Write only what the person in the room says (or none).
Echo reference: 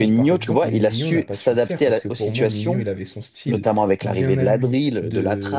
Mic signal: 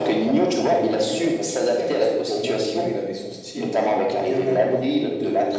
none